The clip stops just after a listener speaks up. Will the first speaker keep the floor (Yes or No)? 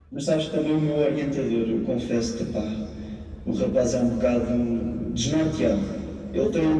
Yes